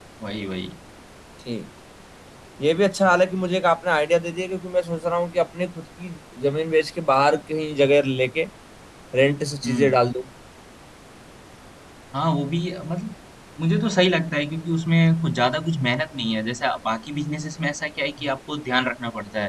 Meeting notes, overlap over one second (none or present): none